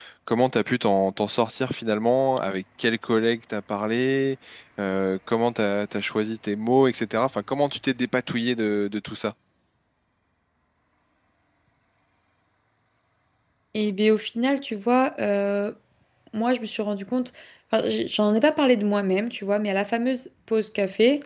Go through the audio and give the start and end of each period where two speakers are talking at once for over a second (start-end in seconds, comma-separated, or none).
none